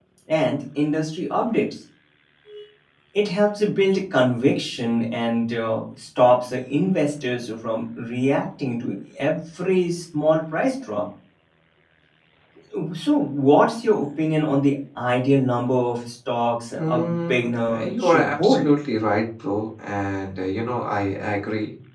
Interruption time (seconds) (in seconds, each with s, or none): 16.8 s